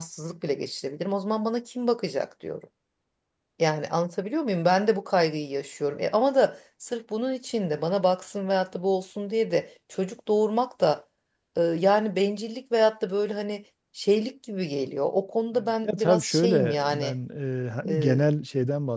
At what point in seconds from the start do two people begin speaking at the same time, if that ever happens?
15.6 s

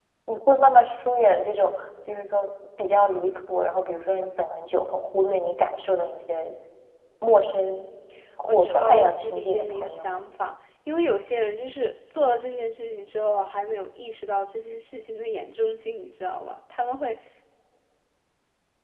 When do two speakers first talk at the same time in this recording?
8.5 s

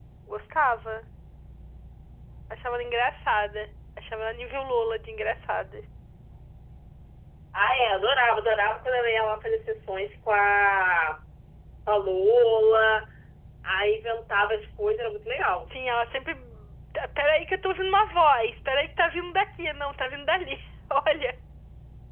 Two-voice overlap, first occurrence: none

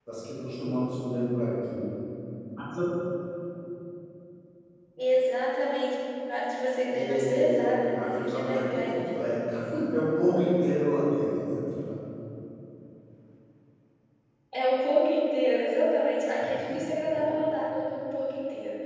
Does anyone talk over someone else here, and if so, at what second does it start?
6.9 s

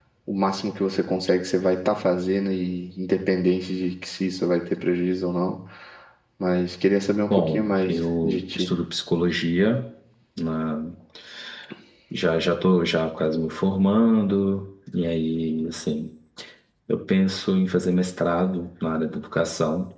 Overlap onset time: 7.3 s

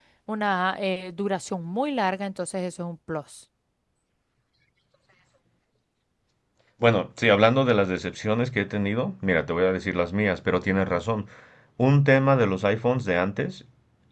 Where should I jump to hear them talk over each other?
none

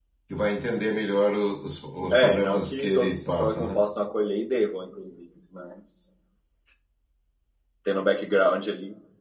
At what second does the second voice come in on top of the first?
2.1 s

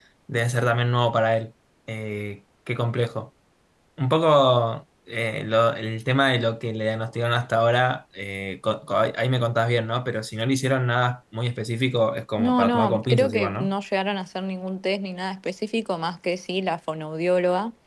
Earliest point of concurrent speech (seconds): 12.4 s

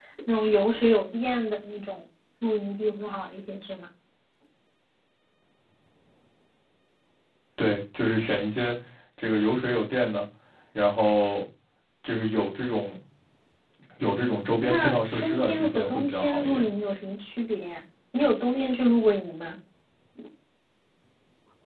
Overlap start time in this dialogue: 14.6 s

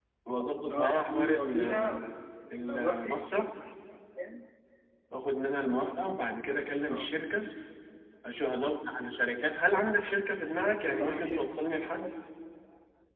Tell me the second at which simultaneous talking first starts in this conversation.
0.7 s

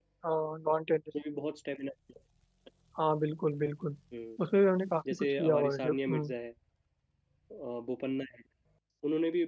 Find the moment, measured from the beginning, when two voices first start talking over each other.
5.1 s

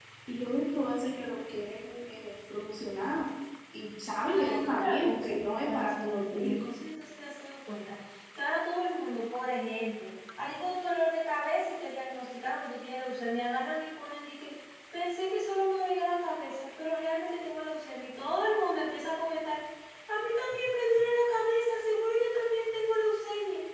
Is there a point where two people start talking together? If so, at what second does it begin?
4.3 s

